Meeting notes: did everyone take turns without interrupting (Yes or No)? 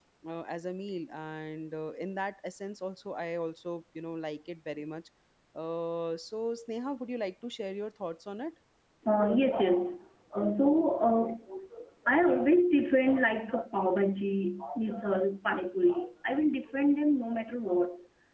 Yes